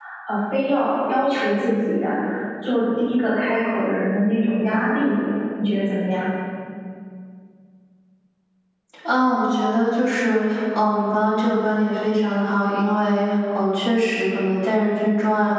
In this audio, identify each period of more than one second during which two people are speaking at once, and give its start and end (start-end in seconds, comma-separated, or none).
none